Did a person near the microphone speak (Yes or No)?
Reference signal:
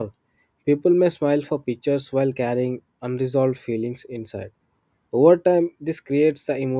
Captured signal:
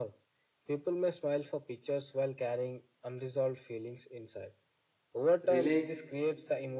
Yes